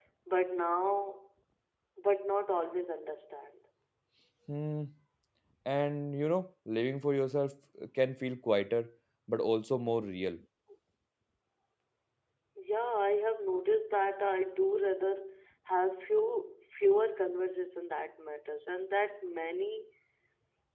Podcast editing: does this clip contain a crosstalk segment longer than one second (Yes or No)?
No